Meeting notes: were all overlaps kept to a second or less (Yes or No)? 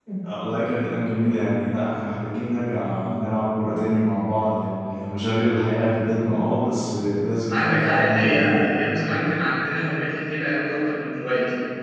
No